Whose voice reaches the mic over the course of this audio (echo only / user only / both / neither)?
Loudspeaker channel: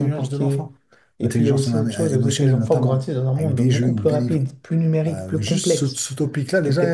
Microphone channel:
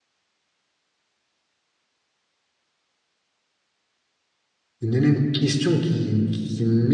user only